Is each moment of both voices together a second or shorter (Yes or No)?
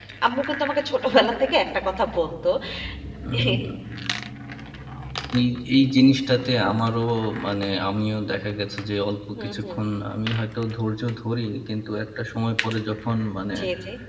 Yes